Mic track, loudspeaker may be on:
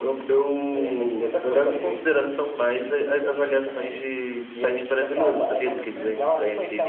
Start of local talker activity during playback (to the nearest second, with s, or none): 5 s